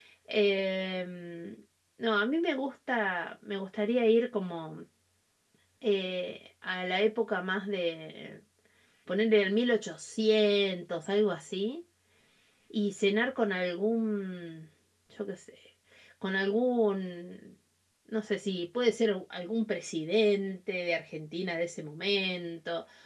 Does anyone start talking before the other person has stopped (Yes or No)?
No